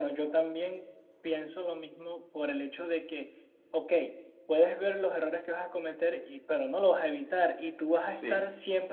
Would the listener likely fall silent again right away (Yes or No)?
Yes